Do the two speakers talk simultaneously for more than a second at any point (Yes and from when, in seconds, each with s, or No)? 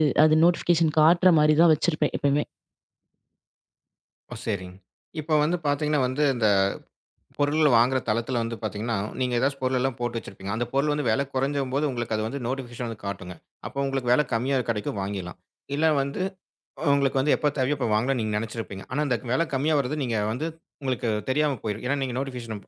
No